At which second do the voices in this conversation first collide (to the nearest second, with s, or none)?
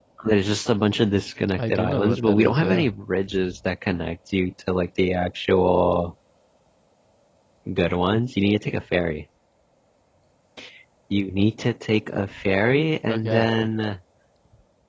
2 s